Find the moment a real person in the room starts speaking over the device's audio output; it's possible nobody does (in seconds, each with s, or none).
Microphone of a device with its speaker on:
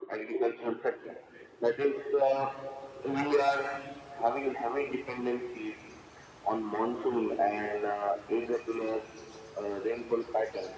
none